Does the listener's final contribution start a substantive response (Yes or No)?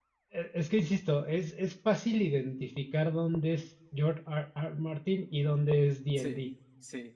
No